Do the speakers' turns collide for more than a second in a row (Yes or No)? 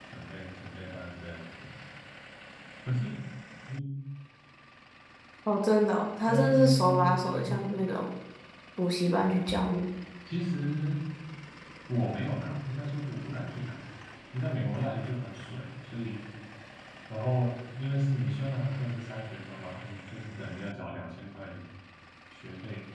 Yes